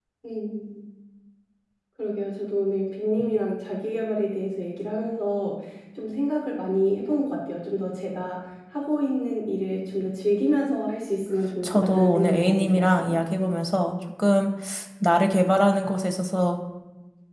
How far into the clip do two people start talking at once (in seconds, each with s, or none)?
11.6 s